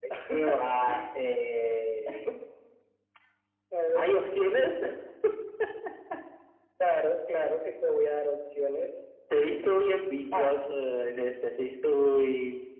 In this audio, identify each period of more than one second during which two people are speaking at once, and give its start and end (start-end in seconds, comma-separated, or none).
none